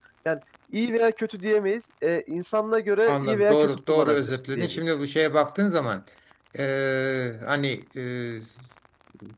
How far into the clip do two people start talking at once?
3.1 s

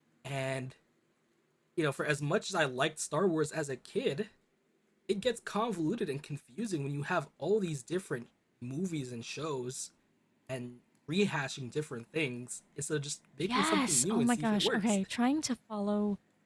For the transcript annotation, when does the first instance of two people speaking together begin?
13.4 s

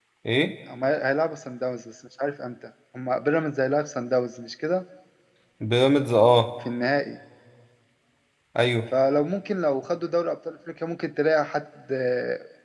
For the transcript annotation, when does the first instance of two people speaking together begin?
none

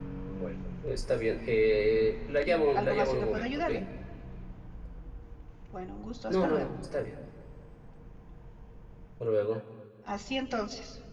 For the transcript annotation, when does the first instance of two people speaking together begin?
2.5 s

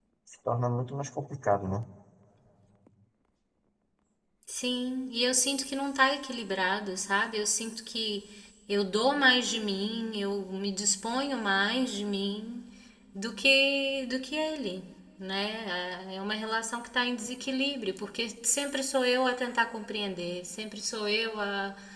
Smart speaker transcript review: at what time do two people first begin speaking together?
none

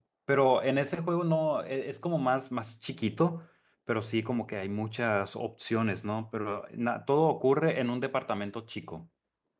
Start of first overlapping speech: none

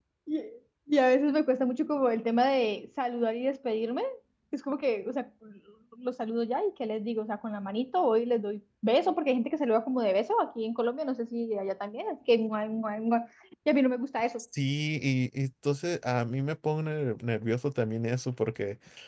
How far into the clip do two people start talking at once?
none

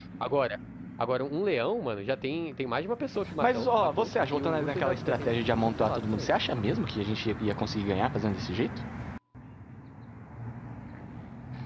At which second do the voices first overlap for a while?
3.4 s

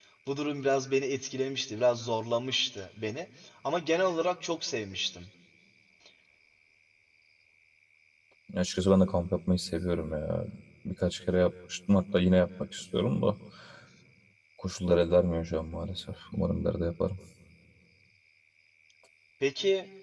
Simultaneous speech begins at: none

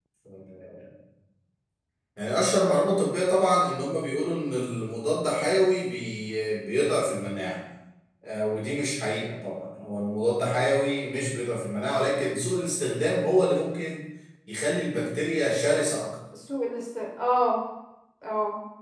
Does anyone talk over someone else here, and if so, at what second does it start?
none

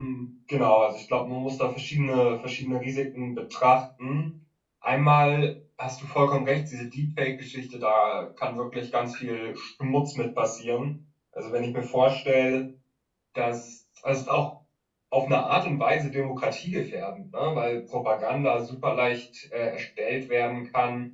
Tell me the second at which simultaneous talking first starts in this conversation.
none

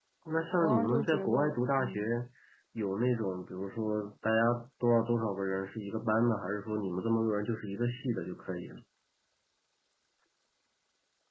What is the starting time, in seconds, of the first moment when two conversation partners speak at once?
0.6 s

